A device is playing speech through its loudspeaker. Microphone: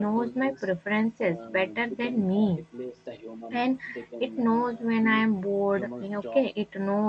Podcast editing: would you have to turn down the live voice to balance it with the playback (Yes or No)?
Yes